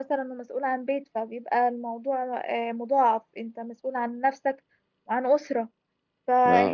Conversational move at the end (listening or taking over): listening